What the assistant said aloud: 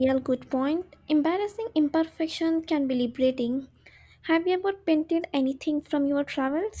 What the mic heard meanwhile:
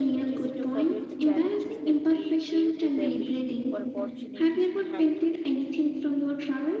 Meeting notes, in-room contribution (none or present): present